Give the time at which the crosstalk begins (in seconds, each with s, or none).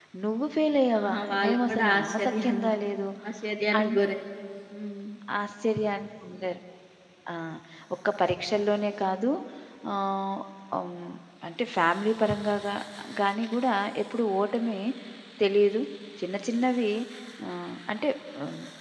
1.0 s